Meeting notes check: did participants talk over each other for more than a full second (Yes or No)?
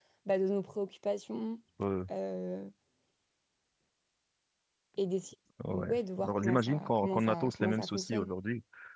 Yes